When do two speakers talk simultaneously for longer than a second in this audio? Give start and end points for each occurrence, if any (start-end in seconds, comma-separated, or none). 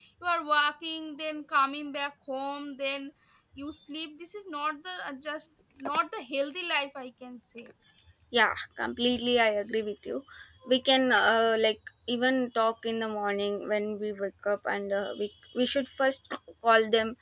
none